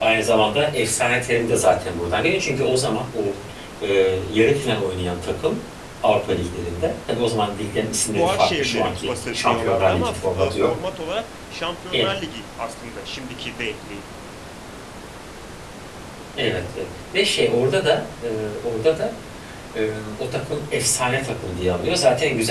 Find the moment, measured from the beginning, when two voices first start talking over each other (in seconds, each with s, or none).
8.2 s